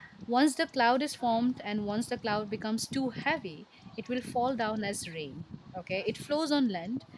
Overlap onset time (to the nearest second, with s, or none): none